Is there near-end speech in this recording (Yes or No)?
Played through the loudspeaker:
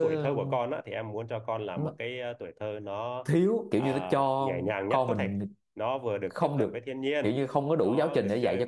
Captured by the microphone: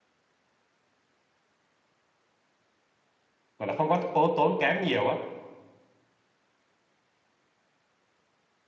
Yes